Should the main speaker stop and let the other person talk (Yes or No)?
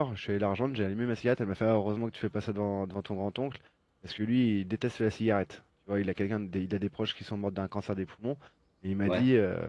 No